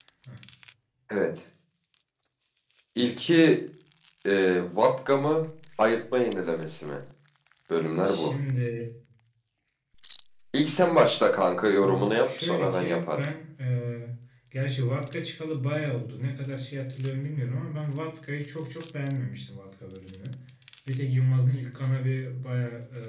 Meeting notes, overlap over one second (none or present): present